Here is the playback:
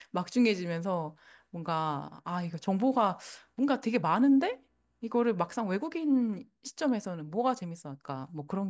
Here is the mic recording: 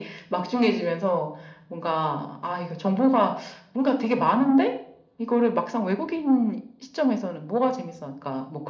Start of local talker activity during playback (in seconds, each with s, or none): none